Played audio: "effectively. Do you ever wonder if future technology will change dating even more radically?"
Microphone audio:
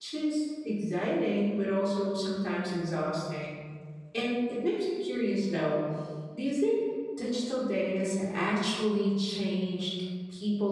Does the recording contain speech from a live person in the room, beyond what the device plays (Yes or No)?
Yes